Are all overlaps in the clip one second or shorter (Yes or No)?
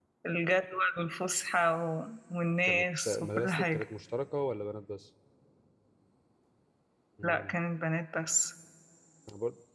No